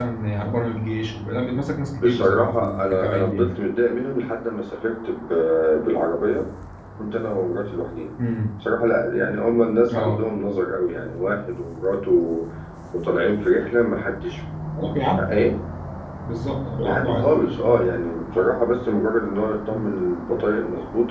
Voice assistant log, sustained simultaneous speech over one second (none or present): present